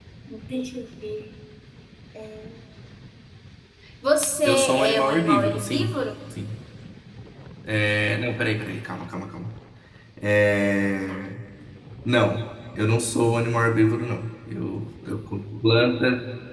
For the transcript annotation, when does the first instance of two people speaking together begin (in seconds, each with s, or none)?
4.5 s